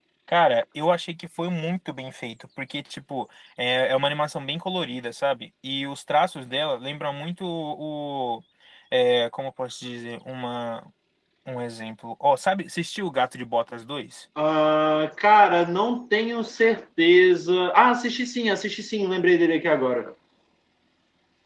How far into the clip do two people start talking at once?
none

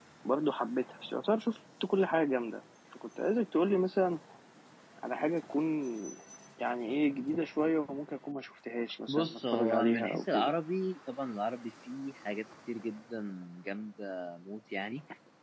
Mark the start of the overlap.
9.1 s

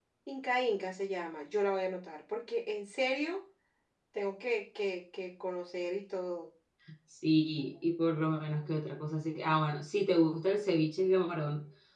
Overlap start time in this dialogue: none

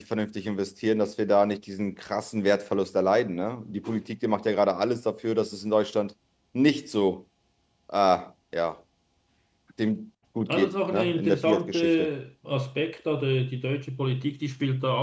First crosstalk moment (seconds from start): 10.5 s

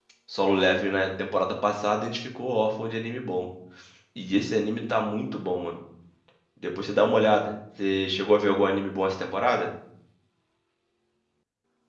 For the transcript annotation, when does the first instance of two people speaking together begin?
none

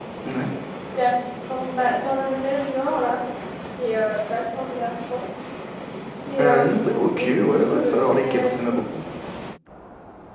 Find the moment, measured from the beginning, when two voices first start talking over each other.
6.4 s

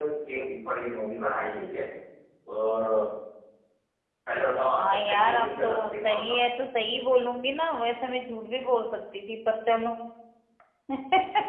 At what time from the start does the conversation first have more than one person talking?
4.8 s

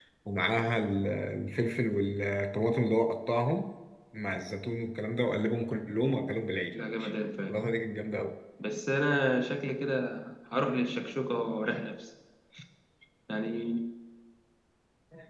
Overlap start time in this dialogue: none

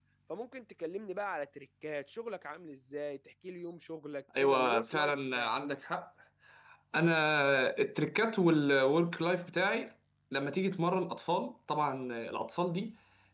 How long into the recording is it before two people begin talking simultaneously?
4.3 s

